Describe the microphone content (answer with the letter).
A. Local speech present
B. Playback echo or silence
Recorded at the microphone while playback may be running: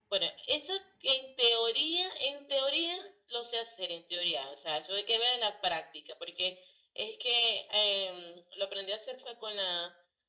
B